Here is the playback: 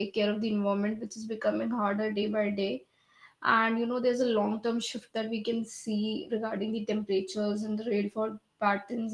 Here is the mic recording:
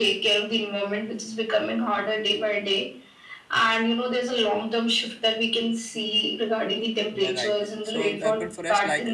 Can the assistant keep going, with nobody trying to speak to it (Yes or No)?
No